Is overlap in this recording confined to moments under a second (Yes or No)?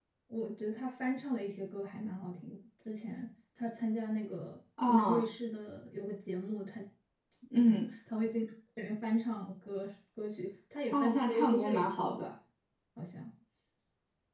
No